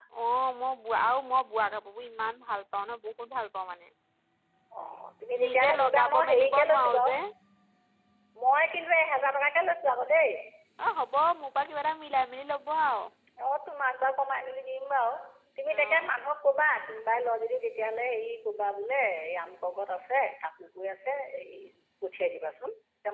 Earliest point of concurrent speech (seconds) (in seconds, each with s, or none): 5.4 s